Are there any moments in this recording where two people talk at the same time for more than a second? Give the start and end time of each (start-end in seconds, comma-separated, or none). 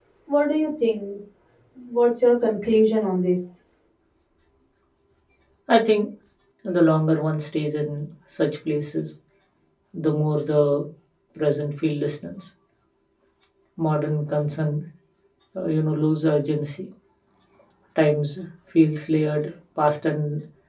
none